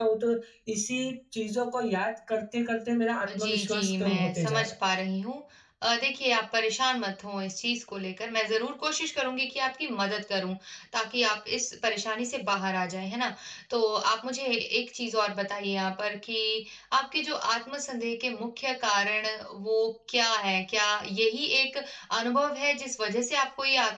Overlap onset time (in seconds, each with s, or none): 3.3 s